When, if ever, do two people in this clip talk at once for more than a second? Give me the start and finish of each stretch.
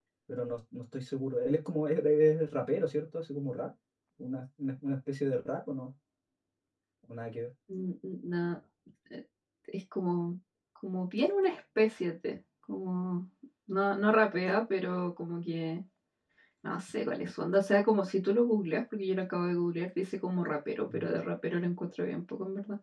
none

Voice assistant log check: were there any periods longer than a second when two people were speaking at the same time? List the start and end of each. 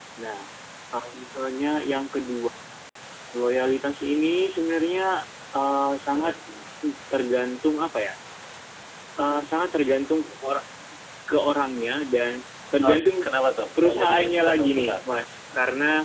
13.8-15.1

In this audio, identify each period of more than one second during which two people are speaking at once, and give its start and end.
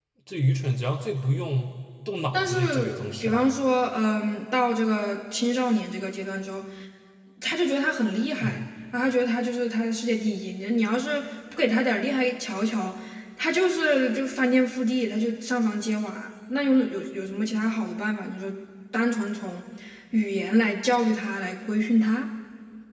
2.3-3.5

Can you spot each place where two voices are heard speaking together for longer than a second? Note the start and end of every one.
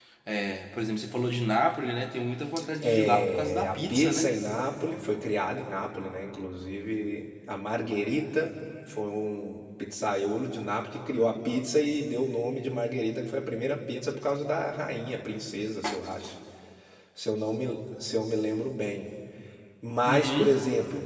2.8-4.3

